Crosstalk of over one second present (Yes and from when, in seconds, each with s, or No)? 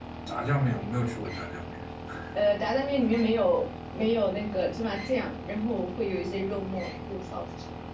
No